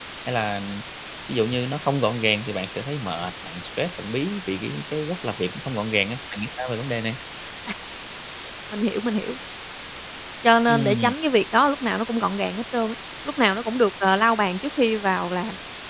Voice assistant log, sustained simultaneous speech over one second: none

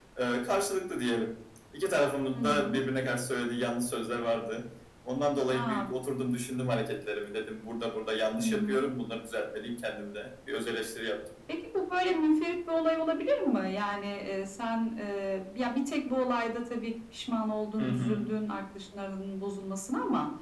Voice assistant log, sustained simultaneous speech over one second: none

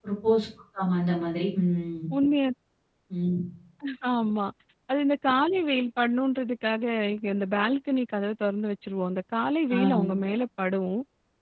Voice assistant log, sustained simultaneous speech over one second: none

